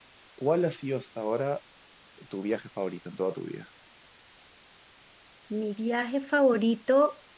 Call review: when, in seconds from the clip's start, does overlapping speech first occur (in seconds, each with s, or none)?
none